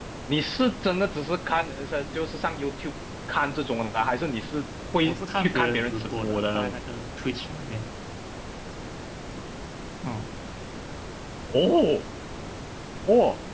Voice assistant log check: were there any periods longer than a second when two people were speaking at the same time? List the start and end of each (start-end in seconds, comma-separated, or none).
5.0-6.8